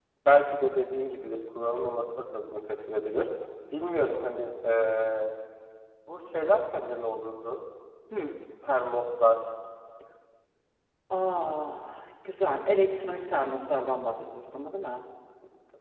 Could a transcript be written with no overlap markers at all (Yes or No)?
Yes